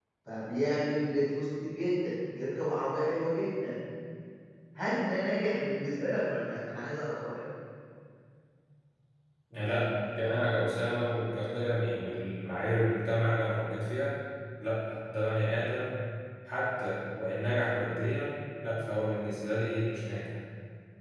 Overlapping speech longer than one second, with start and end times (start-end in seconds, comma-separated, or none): none